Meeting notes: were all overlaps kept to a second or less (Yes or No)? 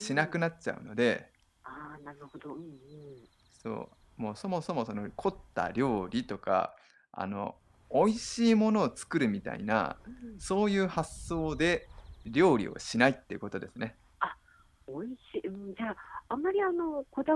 Yes